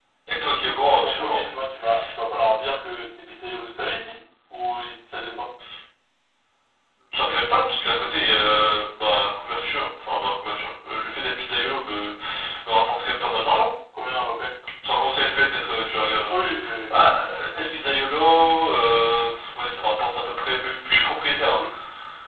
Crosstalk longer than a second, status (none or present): none